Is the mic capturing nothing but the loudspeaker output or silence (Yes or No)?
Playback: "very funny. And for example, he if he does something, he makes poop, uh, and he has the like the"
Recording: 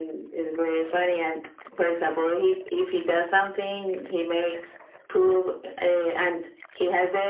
Yes